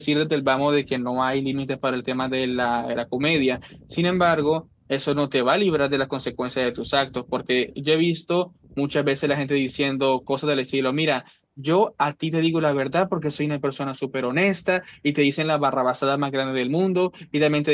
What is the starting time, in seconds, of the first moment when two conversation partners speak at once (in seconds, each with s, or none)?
none